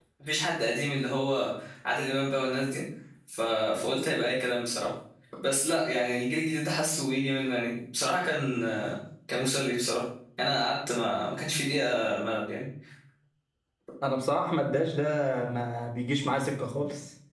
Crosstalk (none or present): none